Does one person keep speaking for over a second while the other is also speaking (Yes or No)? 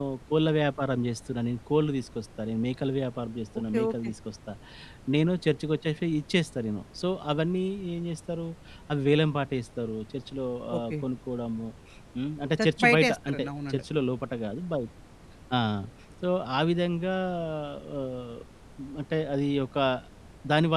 Yes